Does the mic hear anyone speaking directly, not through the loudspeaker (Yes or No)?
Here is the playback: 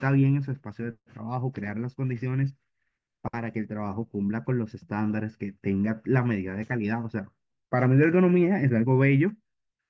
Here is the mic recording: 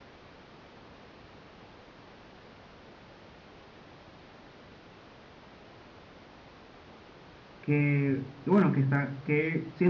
Yes